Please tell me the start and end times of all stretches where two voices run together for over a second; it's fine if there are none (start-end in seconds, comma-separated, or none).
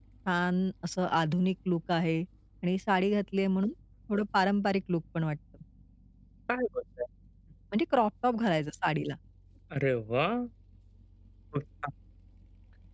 none